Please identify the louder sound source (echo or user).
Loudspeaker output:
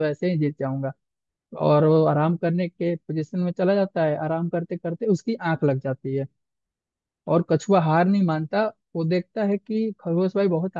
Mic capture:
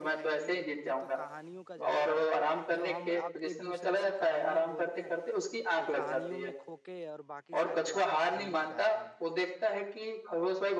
echo